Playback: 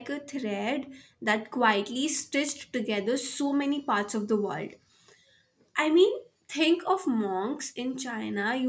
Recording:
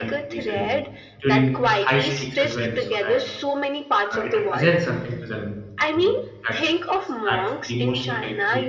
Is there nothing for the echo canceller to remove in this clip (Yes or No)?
No